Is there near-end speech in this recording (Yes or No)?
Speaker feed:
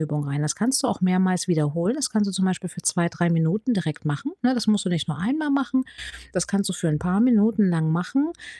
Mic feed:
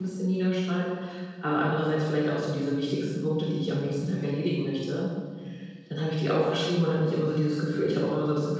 Yes